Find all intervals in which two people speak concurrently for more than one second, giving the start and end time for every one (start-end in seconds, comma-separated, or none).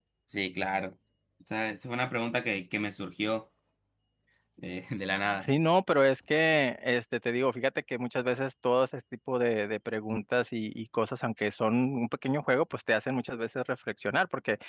none